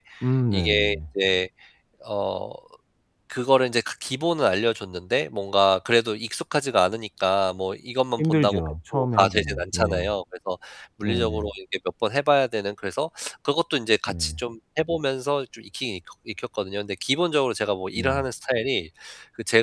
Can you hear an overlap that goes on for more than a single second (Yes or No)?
Yes